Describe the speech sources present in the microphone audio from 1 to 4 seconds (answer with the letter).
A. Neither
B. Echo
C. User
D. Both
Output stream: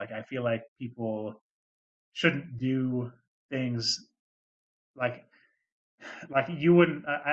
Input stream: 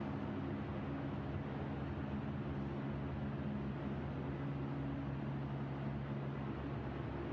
A